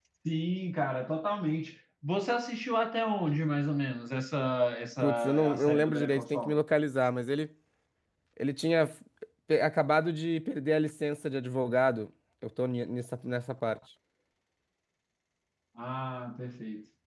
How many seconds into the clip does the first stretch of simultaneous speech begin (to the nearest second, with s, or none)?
5 s